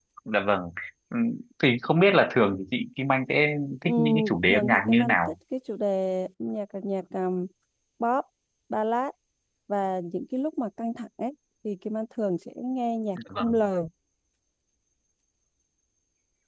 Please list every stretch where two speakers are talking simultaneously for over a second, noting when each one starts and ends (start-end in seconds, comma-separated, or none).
3.8-5.2